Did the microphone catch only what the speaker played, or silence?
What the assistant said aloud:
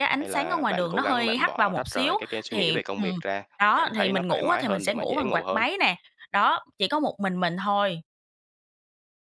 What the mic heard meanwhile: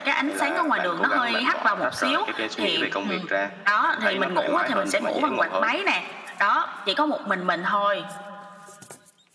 Yes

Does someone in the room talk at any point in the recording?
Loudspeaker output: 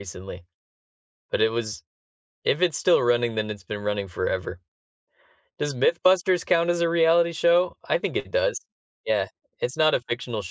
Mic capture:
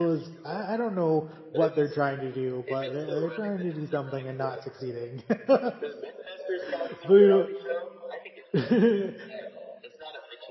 Yes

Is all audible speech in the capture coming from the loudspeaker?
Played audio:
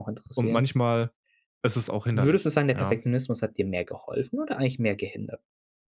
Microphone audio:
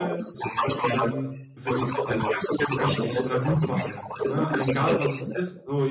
No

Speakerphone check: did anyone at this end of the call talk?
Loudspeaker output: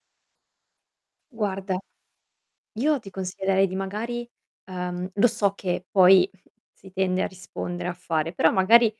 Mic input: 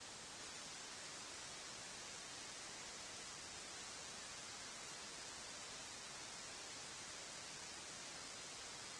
No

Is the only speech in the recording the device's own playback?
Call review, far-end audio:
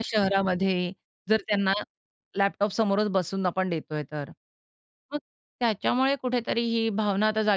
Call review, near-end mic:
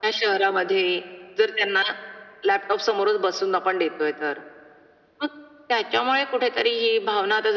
Yes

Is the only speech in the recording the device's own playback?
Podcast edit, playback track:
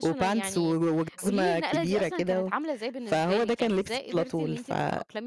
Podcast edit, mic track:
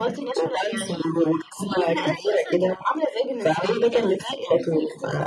Yes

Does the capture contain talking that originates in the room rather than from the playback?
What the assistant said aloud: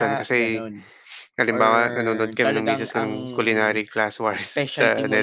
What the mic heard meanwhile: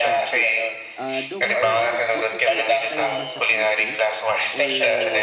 Yes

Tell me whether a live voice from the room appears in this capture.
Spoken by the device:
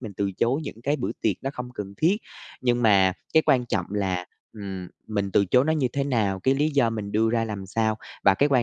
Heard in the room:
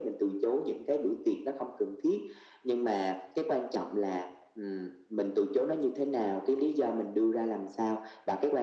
No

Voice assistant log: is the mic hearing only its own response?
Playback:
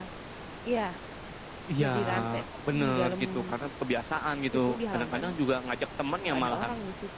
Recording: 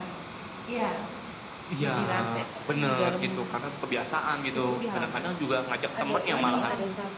No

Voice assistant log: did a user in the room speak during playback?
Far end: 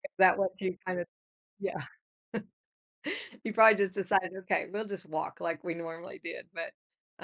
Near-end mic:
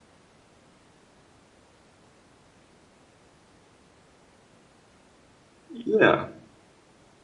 Yes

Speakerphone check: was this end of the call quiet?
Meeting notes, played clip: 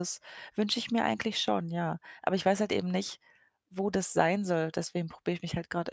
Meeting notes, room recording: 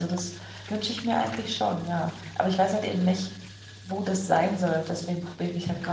Yes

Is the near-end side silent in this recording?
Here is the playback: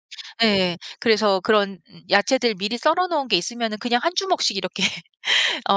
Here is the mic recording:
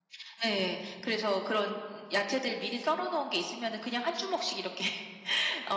Yes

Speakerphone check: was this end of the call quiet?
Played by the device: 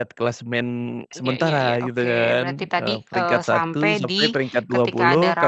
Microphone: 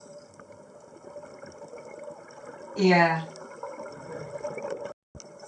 No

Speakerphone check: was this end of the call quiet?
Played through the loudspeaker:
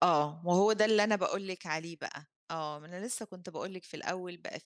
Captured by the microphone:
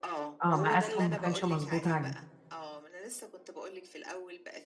No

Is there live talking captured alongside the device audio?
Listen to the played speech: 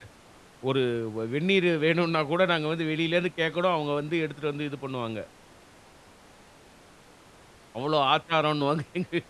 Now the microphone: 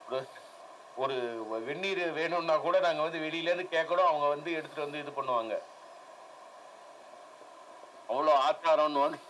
No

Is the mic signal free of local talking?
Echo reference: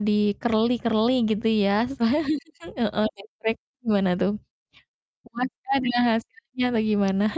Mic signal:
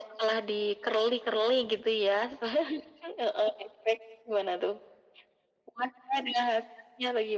Yes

